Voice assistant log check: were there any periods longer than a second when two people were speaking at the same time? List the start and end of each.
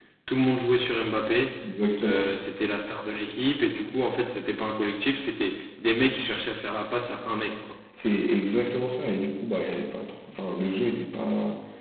none

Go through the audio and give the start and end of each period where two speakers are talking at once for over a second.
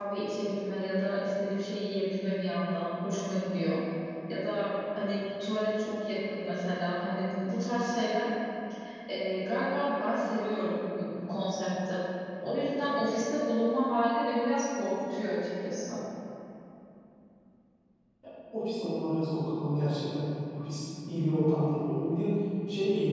none

